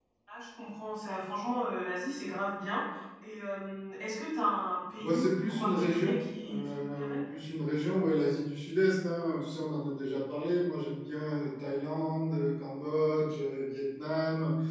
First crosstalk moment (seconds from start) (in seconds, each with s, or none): 5.0 s